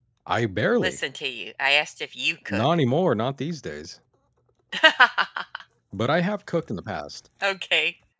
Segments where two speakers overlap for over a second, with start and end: none

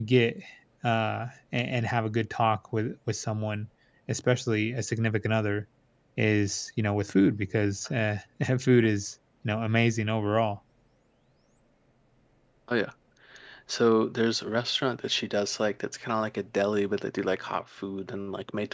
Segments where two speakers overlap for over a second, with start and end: none

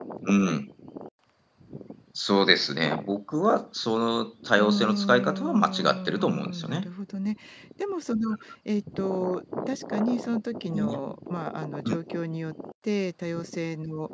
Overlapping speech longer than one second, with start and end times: 4.6-6.9

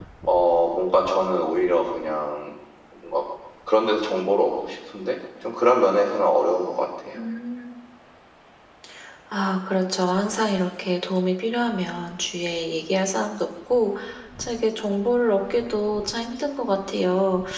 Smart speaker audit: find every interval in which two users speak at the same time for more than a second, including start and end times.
none

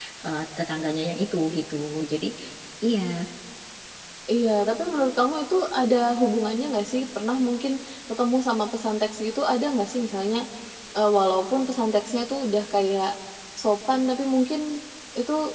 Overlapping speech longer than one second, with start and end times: none

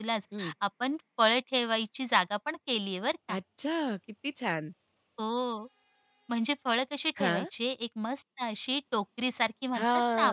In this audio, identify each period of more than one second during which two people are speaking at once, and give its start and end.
none

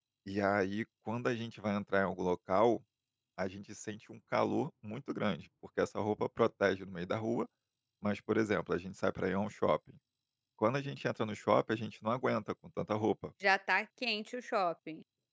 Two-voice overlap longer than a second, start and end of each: none

